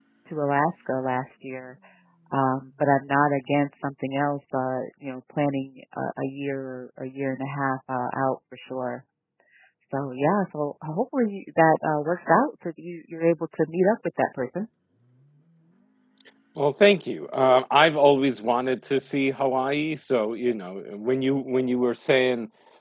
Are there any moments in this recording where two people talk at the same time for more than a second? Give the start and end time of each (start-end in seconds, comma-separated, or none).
none